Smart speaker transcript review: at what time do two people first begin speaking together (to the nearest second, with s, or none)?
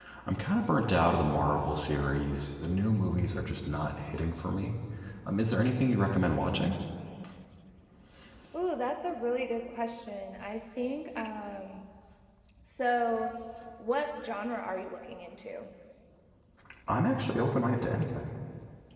none